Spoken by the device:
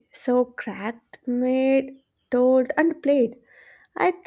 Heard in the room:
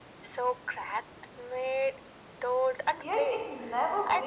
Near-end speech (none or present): present